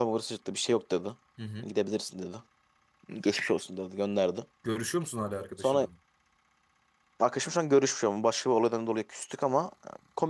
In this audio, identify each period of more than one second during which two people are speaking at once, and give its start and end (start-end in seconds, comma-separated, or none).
none